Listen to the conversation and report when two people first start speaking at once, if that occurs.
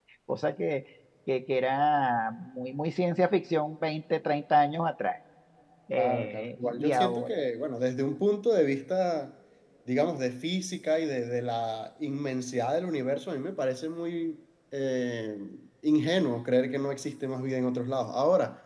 6.0 s

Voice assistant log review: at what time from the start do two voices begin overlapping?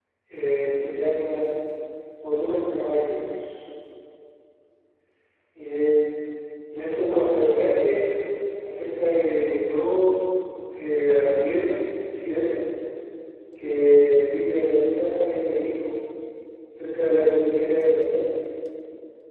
6.8 s

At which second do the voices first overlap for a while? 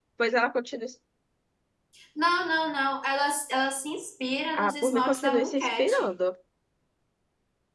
4.5 s

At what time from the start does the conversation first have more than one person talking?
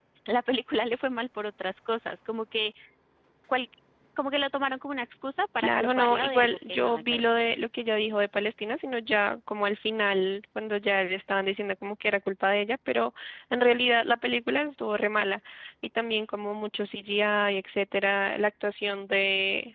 5.6 s

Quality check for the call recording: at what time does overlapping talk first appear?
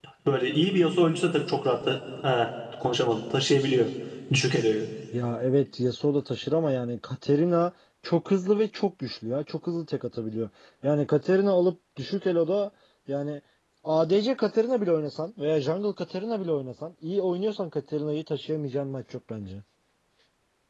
none

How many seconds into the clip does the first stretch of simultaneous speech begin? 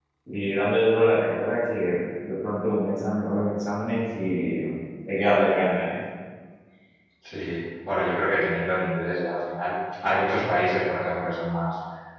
none

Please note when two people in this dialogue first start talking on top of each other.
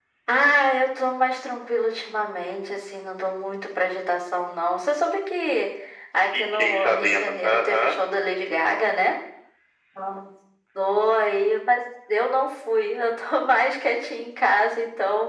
6.3 s

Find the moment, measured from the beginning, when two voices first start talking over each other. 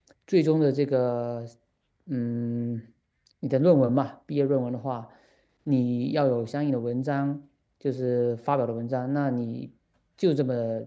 none

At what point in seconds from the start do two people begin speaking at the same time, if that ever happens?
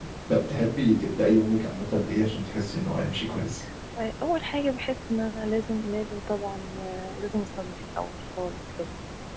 none

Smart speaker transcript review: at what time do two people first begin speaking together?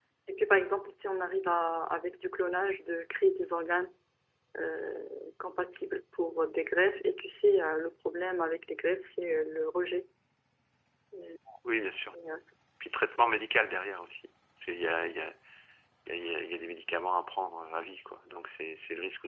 none

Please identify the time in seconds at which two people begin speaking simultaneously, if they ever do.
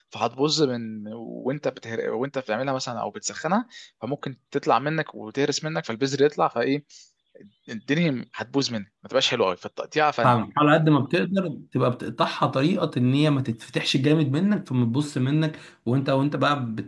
none

